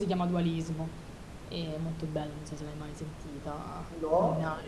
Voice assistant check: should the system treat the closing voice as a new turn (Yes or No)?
Yes